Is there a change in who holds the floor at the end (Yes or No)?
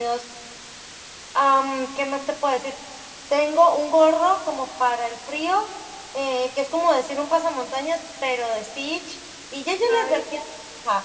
No